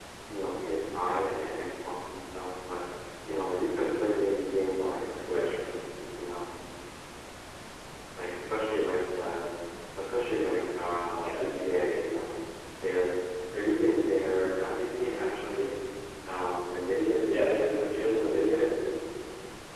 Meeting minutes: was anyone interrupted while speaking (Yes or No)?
Yes